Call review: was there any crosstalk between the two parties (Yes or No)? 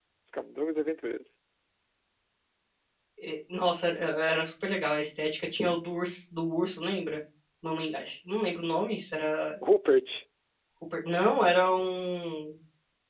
No